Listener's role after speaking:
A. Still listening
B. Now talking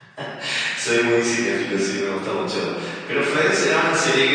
A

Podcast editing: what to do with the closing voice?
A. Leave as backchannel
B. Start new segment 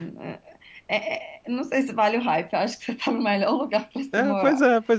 B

